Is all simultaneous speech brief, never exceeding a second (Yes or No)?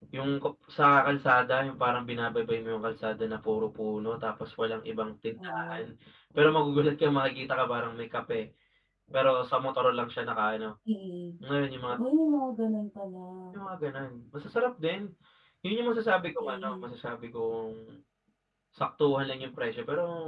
Yes